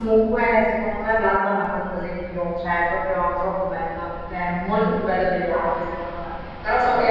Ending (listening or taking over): listening